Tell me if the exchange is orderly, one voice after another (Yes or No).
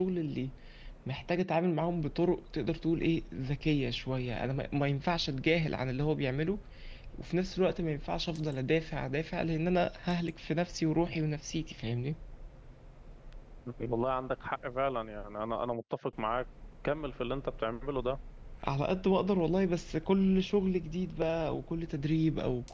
Yes